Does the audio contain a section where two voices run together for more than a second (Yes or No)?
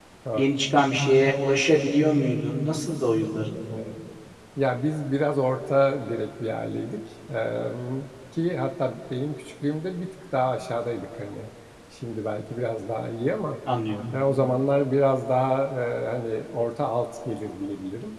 No